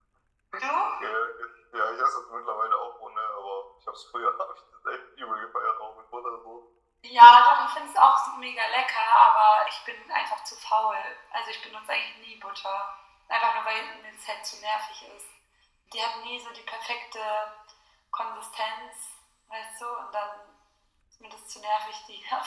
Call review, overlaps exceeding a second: none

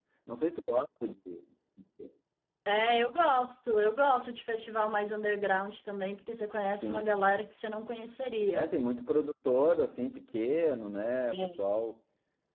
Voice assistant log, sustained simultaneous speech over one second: none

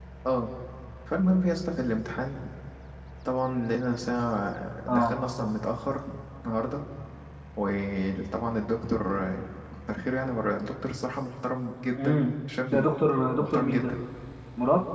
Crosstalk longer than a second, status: none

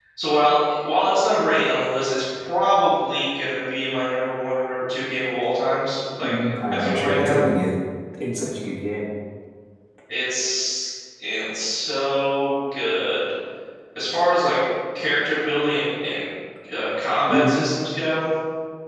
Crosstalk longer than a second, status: present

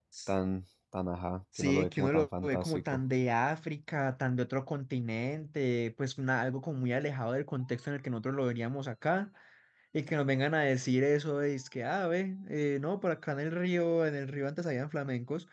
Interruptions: present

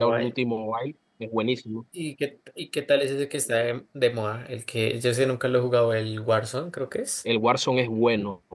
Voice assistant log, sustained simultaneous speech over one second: none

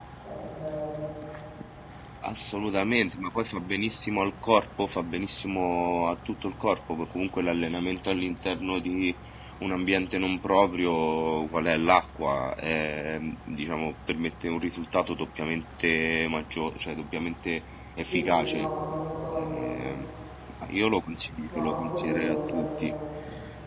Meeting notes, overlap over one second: present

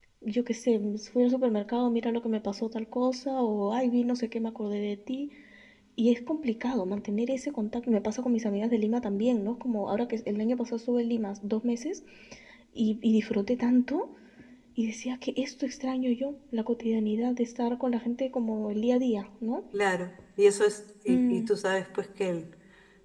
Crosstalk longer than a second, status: none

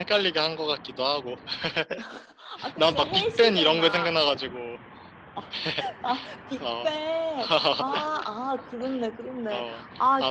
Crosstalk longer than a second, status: present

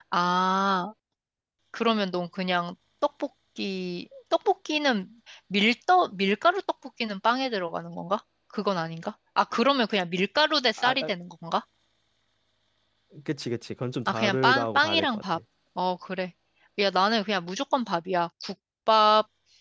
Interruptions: present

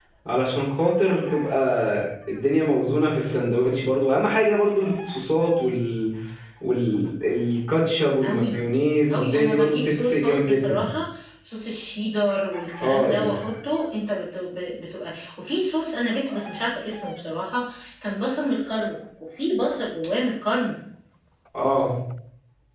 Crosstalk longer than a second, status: present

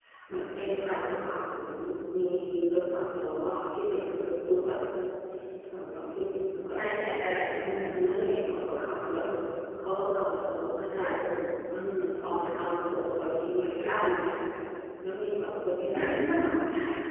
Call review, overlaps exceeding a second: none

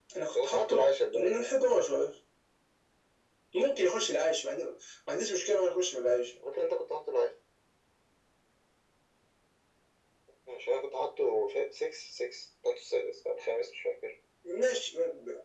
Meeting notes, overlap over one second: none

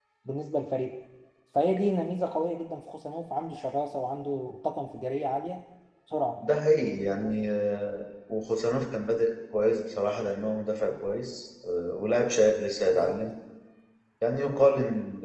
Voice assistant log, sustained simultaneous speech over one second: none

